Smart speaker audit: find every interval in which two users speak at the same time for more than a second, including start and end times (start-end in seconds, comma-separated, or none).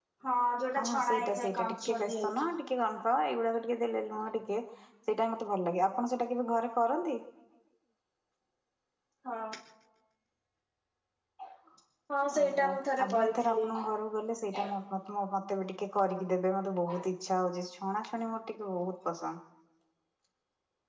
0.8-2.5, 12.4-13.6